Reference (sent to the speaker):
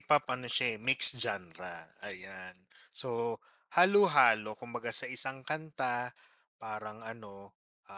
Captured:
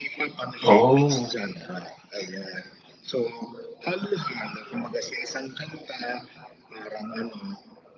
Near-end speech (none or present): present